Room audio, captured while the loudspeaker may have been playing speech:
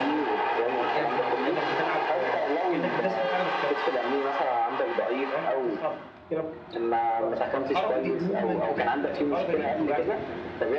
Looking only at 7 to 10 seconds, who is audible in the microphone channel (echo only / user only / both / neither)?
both